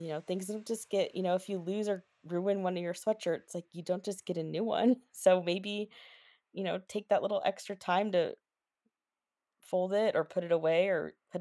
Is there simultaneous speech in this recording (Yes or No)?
No